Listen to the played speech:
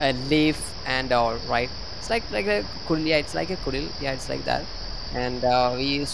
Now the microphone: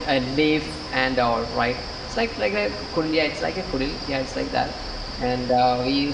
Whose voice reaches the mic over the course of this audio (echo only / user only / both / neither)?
echo only